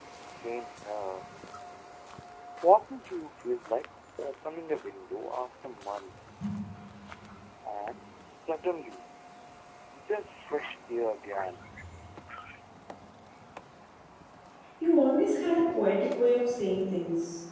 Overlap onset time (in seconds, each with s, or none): none